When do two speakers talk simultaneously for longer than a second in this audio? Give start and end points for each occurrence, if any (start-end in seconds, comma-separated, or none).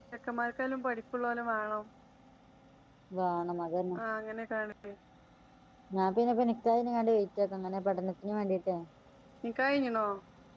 none